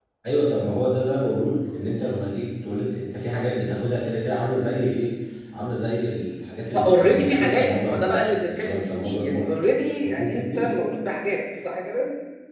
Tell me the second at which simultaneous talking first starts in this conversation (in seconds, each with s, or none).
6.7 s